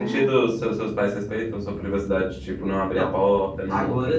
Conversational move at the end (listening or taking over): taking over